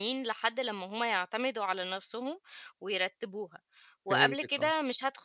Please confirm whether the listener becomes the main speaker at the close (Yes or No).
No